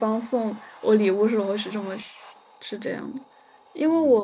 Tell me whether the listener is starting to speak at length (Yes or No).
No